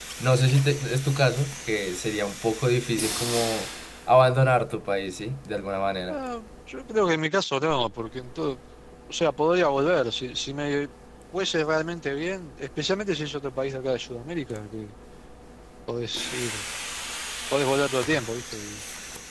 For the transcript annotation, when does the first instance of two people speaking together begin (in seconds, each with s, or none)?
none